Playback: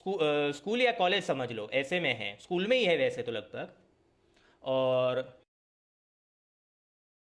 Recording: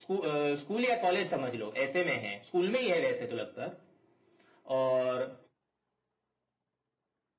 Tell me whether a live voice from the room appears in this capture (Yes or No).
No